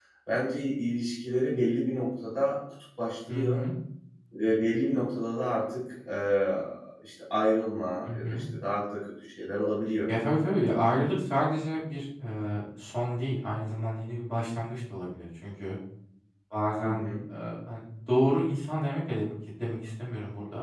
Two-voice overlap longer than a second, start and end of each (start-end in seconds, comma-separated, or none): none